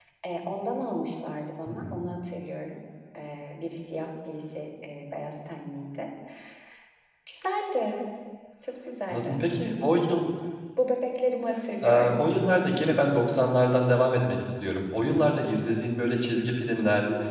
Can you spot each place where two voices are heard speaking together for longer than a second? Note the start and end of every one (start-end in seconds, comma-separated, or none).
none